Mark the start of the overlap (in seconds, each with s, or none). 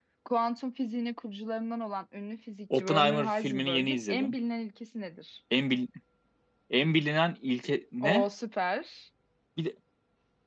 2.7 s